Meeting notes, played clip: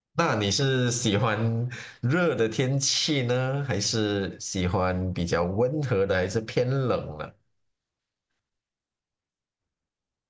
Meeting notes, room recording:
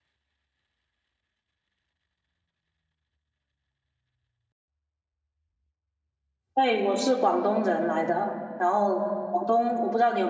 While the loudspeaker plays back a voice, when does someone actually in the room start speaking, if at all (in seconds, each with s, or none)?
6.5 s